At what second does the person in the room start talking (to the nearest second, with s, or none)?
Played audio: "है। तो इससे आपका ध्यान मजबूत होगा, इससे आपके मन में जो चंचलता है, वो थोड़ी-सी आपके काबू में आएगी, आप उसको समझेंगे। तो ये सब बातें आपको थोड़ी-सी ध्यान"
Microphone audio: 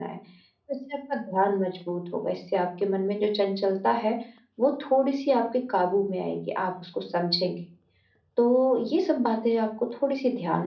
none